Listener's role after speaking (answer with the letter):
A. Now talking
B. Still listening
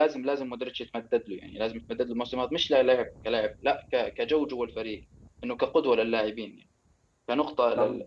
B